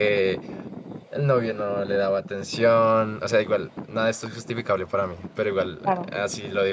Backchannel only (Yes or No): Yes